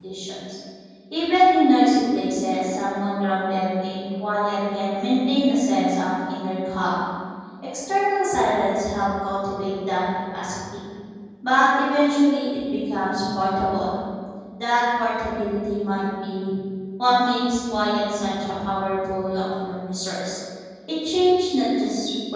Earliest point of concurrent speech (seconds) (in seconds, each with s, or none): none